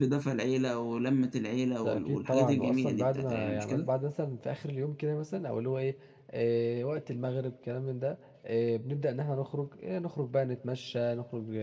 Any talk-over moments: Yes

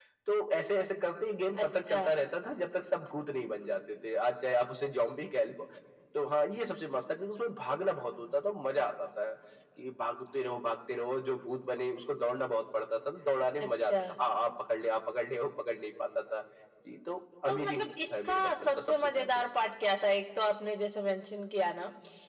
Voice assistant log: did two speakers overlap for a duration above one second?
Yes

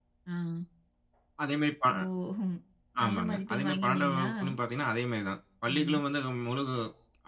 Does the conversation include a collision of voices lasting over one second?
Yes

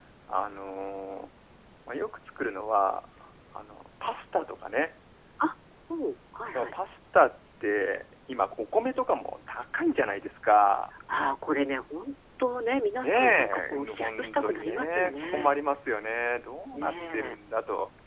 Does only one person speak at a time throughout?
No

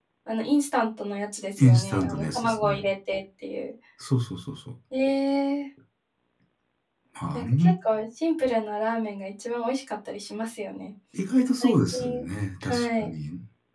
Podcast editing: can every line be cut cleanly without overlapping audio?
No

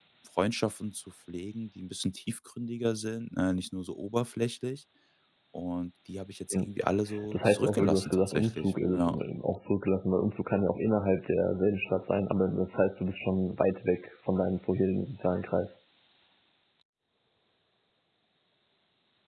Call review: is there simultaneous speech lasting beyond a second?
Yes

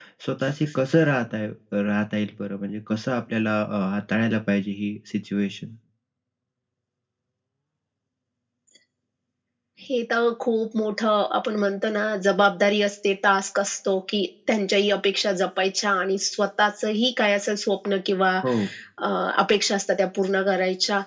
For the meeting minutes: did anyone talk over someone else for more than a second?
No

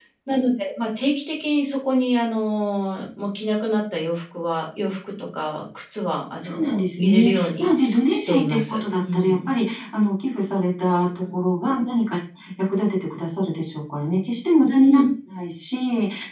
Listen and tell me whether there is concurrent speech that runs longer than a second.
Yes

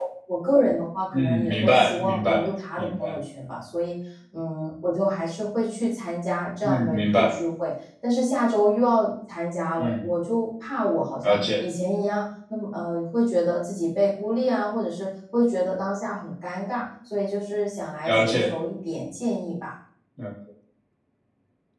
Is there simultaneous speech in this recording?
Yes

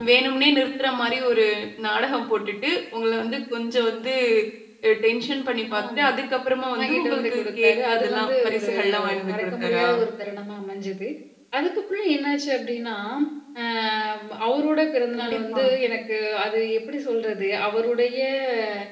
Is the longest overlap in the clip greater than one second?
Yes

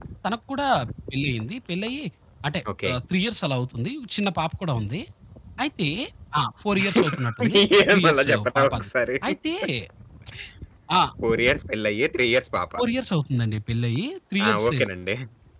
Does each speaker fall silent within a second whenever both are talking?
No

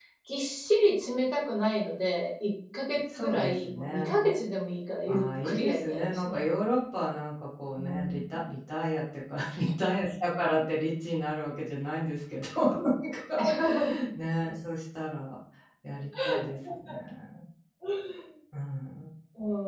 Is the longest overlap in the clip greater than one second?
Yes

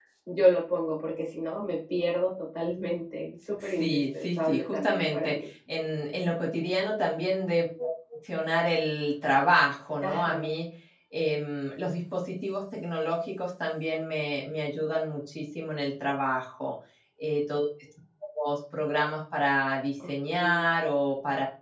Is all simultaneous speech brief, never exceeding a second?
No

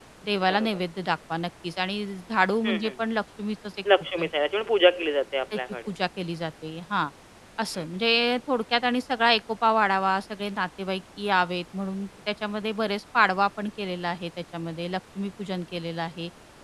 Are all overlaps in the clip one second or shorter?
Yes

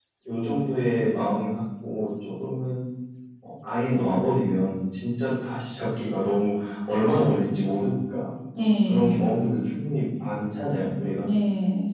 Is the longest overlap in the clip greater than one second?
No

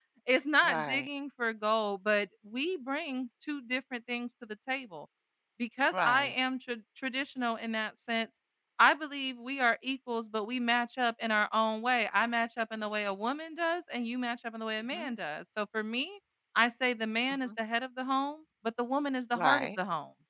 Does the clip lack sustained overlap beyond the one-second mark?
Yes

